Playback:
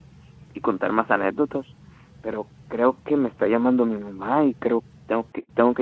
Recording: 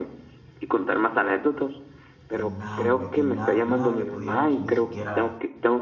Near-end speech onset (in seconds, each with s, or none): 2.3 s